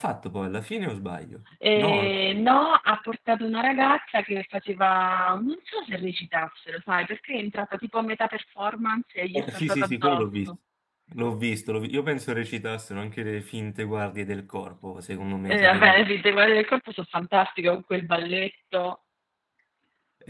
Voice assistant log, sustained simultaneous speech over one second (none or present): present